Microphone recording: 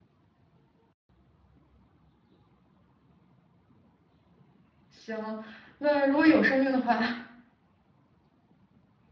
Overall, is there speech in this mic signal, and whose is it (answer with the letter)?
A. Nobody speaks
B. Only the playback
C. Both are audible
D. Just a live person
D